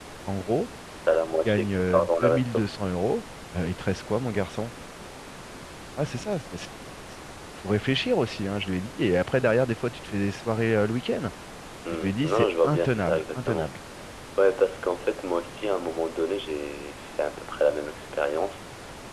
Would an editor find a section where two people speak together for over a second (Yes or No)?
Yes